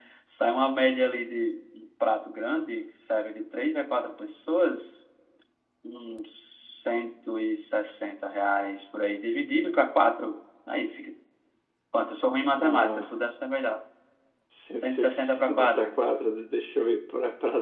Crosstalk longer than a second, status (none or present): present